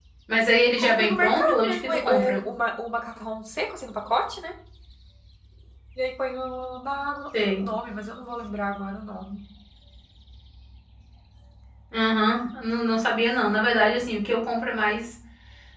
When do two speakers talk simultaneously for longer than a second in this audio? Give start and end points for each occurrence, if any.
0.8-2.4

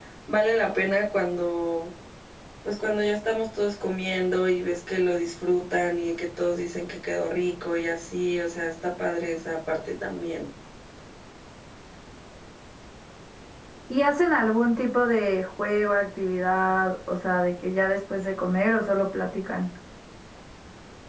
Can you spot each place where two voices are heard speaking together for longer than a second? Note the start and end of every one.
none

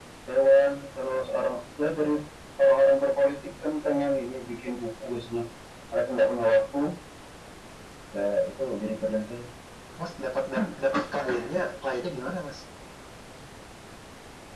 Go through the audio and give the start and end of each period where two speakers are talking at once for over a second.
none

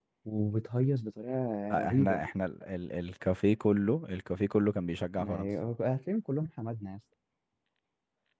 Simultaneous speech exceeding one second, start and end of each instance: none

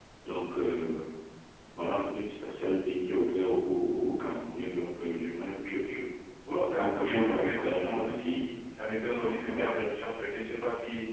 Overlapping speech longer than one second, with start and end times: 6.8-8.4

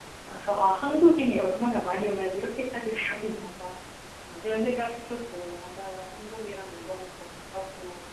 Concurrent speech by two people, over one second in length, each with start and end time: none

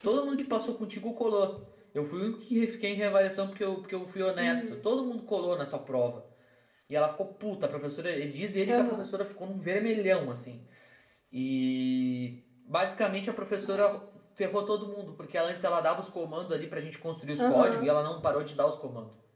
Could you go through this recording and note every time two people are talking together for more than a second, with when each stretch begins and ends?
none

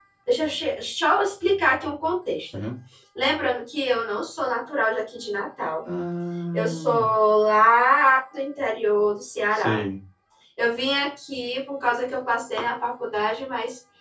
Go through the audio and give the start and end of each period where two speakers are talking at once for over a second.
none

